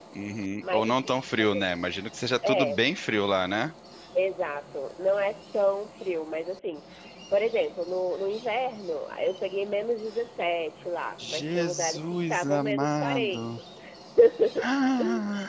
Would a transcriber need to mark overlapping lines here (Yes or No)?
Yes